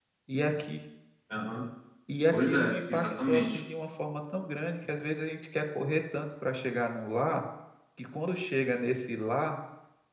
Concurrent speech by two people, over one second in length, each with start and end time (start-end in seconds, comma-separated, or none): 2.3-3.6